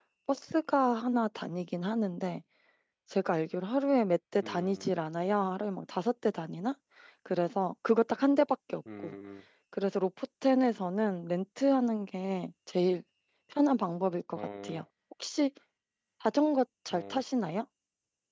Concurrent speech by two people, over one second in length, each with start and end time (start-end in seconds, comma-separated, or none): none